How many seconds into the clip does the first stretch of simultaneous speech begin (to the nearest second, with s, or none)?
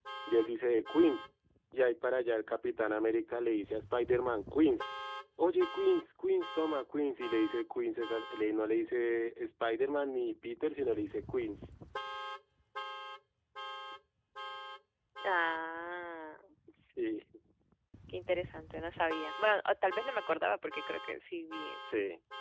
none